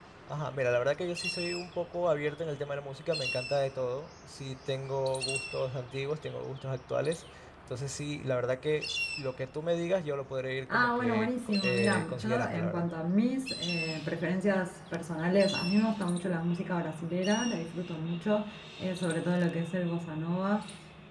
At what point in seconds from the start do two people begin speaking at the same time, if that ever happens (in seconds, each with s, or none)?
10.7 s